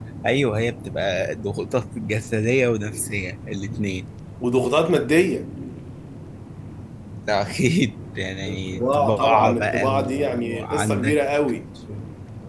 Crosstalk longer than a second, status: present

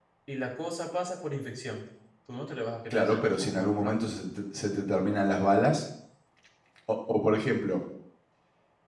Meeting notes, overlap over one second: present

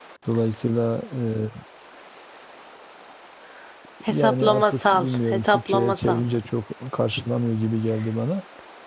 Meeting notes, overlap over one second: present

